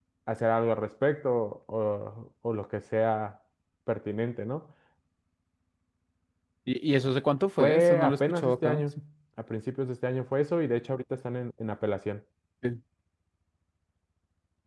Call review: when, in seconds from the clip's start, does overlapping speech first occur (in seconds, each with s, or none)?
7.6 s